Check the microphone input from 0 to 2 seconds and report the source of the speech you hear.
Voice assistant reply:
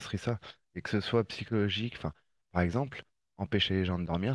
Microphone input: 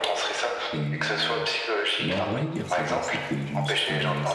both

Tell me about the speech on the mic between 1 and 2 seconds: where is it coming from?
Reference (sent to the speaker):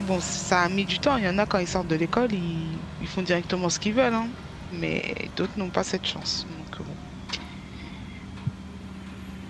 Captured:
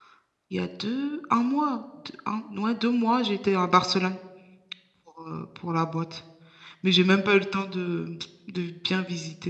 user only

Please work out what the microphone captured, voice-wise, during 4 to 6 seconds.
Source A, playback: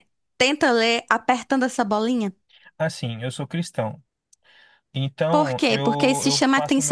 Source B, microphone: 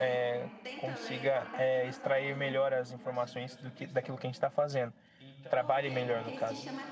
both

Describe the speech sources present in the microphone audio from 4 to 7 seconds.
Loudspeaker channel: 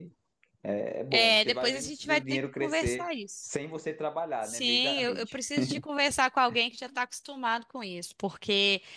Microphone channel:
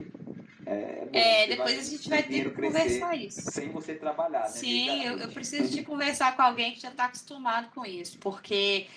echo only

